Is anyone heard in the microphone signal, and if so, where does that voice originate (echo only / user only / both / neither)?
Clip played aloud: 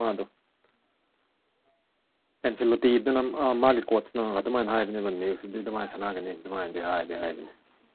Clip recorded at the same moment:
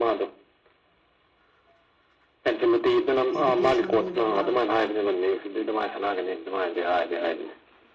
both